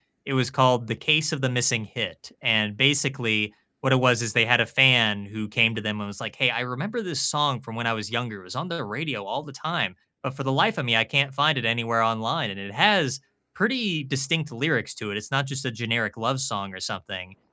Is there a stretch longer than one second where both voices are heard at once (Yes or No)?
No